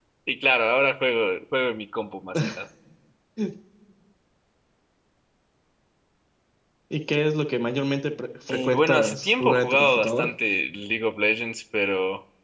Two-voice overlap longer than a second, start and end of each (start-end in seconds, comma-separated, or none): 8.5-10.3